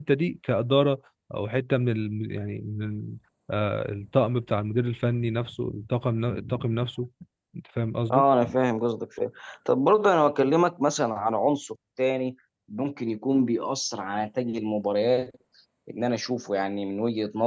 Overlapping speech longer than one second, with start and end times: none

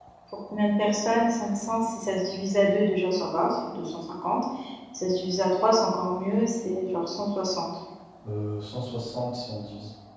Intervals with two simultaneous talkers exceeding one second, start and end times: none

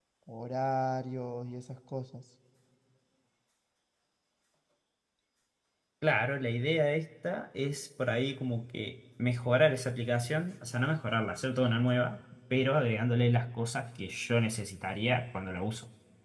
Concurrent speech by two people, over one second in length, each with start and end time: none

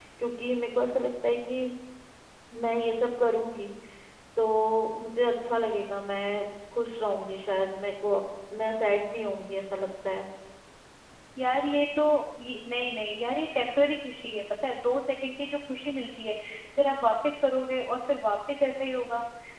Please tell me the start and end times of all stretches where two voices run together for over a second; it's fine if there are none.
none

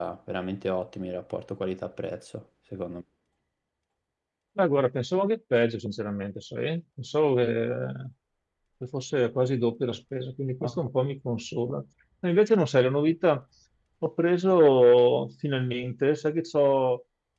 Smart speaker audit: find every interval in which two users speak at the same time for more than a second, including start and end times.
none

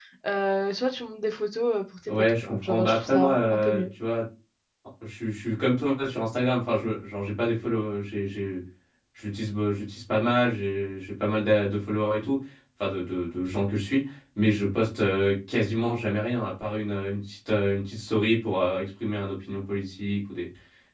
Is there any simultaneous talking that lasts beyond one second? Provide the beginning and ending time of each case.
2.1-3.8

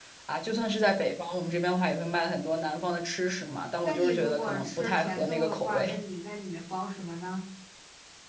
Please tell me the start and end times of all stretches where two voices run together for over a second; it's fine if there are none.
3.8-5.9

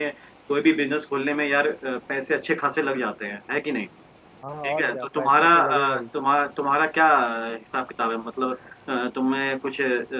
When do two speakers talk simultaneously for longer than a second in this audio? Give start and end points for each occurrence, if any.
4.6-6.0

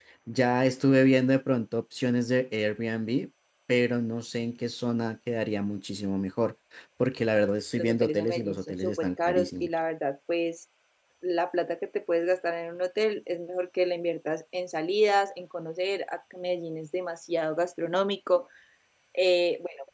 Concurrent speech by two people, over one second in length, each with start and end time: 7.7-9.7

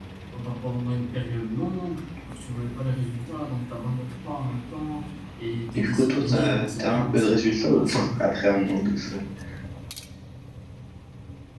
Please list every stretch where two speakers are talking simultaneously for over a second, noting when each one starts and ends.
5.7-8.1

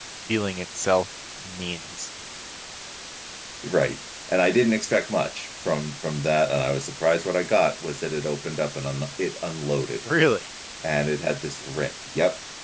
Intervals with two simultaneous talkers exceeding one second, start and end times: none

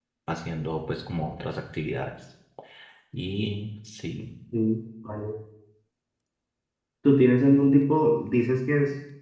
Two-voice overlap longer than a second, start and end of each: none

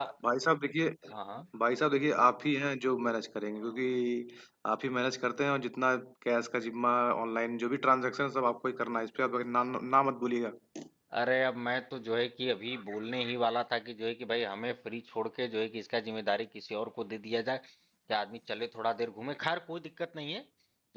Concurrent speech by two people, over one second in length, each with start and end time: none

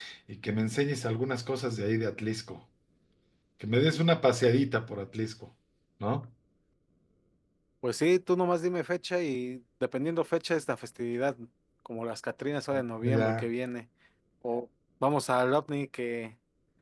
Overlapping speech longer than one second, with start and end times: none

